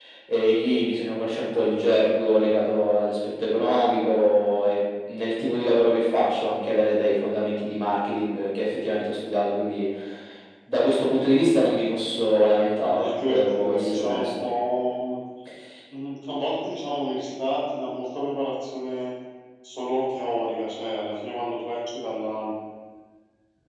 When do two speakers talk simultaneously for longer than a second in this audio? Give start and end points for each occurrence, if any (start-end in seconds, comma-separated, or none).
12.8-14.5